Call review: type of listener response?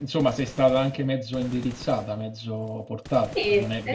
taking over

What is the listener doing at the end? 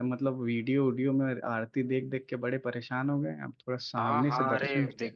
taking over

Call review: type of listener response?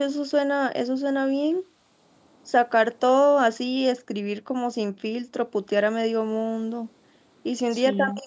listening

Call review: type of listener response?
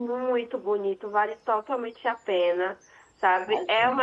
listening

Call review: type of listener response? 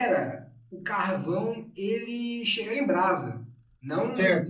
taking over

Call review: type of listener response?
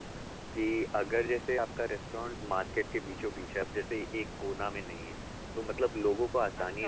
taking over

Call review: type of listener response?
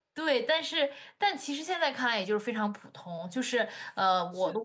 taking over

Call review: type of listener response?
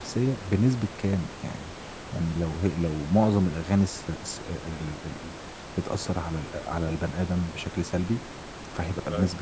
listening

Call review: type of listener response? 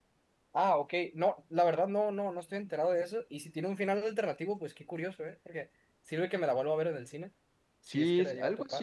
taking over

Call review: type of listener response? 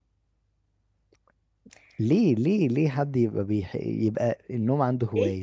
taking over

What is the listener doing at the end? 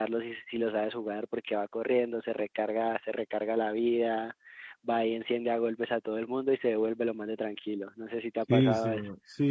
taking over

